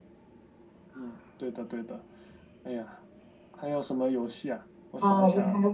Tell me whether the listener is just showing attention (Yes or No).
No